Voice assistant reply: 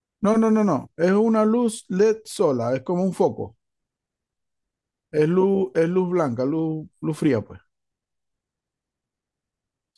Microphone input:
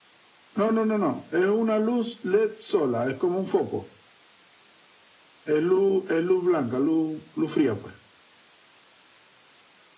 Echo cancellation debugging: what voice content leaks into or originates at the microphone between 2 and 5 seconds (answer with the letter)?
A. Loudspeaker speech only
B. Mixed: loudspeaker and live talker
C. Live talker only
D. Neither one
A